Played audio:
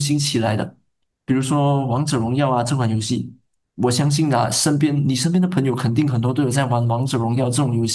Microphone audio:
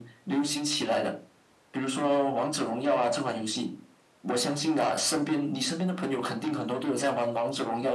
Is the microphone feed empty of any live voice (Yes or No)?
Yes